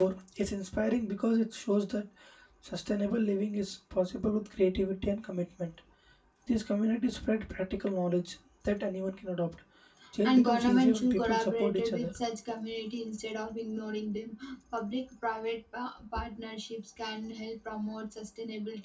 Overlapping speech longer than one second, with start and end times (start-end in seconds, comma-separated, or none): 10.2-12.1